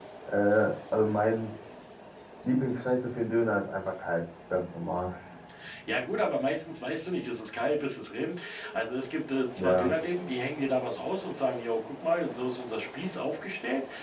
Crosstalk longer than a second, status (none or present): none